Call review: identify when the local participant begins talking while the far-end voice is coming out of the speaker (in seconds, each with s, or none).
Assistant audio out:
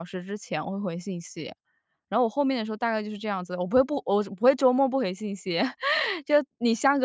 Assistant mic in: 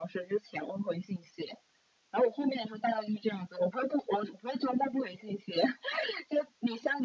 none